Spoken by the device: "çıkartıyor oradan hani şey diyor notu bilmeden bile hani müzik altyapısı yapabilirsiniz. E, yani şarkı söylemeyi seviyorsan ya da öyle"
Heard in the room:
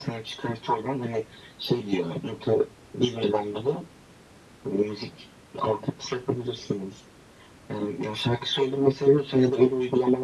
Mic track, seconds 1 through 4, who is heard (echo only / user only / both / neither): echo only